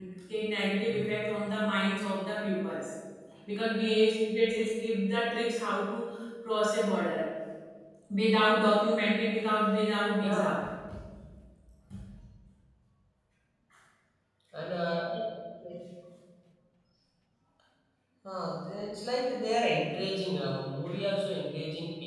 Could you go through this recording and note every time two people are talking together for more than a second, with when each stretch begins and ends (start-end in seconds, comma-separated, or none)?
none